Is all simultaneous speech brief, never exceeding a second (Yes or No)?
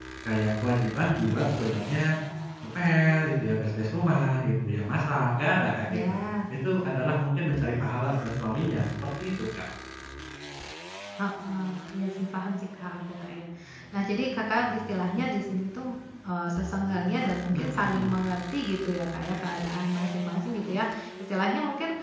Yes